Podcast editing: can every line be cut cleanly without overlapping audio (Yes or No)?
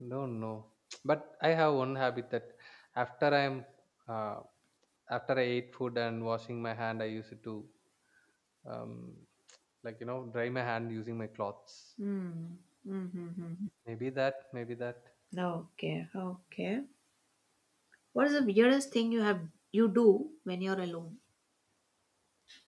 Yes